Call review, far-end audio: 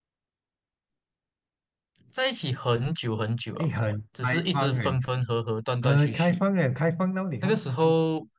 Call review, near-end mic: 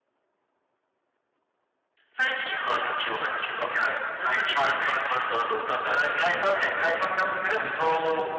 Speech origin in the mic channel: both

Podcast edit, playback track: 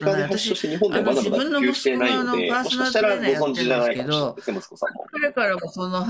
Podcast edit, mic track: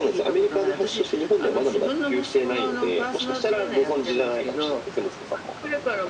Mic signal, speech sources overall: echo only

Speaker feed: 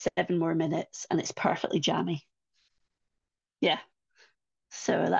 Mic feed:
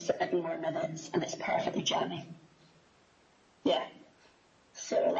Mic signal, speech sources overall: echo only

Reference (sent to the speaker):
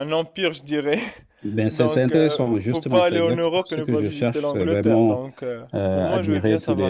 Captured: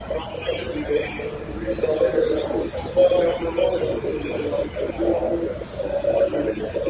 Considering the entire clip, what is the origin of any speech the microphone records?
echo only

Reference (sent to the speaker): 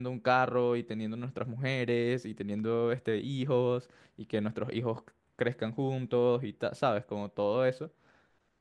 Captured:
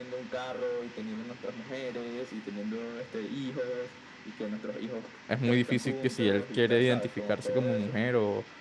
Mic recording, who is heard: both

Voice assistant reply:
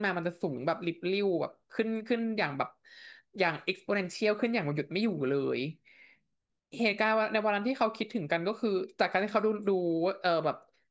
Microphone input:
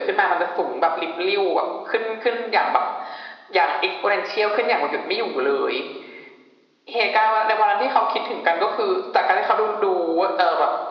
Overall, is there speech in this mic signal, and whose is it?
echo only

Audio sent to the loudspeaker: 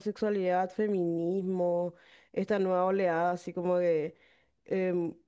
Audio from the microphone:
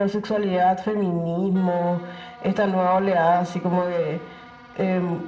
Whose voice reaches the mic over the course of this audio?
echo only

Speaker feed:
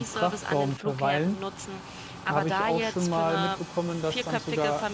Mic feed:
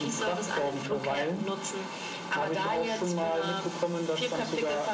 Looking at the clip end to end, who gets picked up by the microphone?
echo only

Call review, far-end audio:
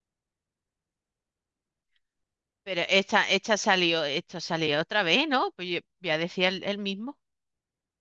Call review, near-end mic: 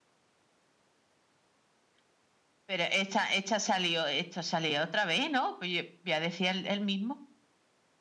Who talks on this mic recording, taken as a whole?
echo only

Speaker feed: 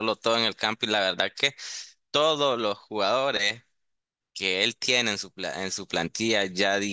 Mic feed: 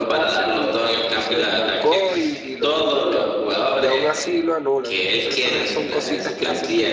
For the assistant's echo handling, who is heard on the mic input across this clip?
both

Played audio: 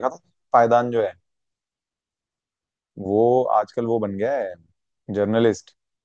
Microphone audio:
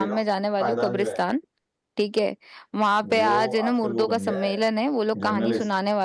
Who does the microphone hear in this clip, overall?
both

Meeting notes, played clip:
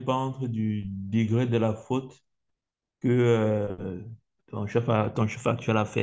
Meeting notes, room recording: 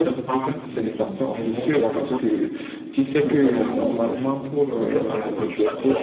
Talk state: both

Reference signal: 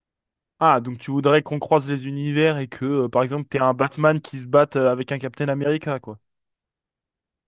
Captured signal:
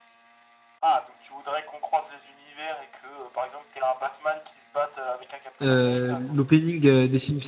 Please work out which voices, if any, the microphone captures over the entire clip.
both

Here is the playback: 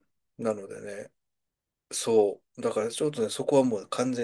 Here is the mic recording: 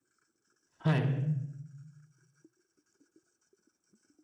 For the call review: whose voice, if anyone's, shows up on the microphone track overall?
user only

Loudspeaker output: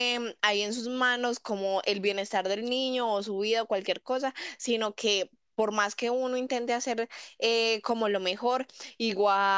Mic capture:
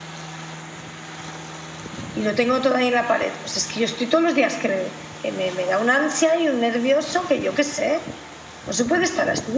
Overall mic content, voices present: user only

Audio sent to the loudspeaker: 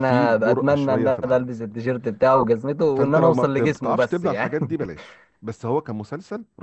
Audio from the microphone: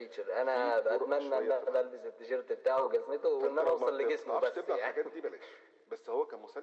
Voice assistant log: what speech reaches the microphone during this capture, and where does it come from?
echo only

